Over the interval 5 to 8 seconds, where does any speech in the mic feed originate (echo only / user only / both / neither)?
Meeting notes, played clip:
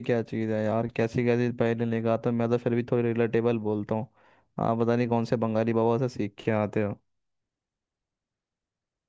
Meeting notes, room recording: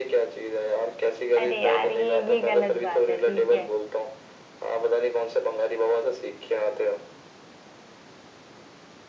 echo only